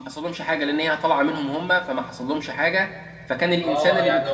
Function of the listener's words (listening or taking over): taking over